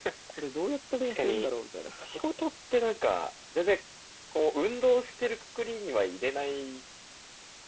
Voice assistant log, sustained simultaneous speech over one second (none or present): none